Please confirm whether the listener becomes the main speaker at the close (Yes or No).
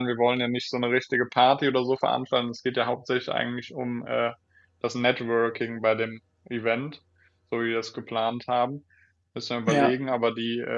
No